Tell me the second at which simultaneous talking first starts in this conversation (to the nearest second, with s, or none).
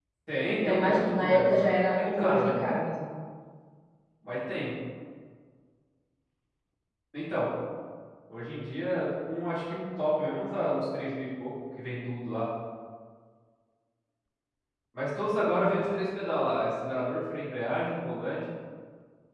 1 s